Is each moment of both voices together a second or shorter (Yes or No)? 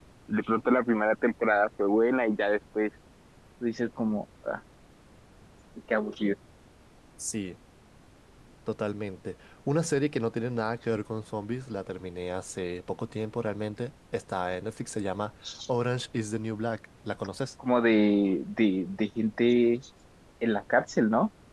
Yes